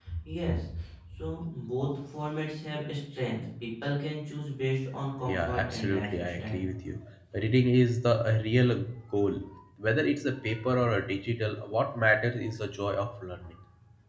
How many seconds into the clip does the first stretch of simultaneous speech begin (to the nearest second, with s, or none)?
5 s